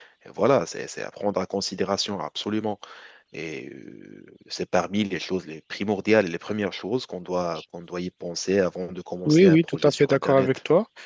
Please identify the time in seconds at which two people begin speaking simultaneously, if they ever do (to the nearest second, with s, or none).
9 s